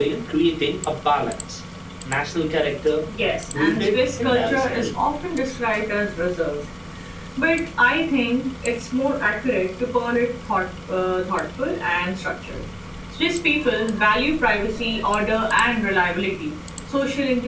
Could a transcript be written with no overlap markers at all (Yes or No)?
No